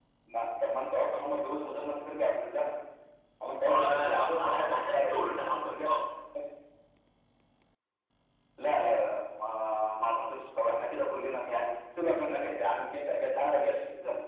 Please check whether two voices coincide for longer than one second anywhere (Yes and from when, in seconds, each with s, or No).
Yes, from 3.7 s